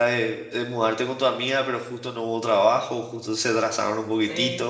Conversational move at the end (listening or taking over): taking over